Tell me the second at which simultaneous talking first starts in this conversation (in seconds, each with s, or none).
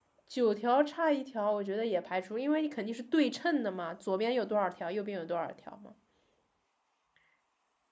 none